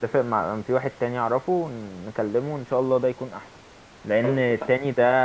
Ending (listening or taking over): listening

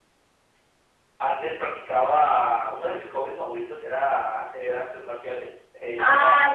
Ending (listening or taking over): taking over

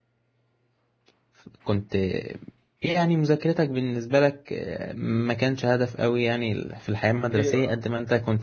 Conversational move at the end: listening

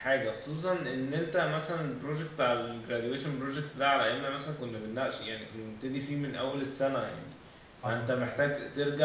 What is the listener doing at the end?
listening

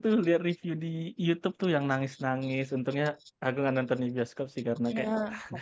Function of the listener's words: taking over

